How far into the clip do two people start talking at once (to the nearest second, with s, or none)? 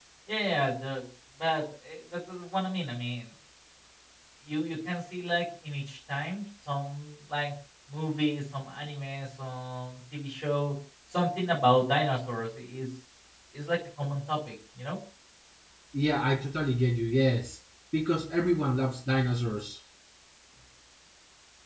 none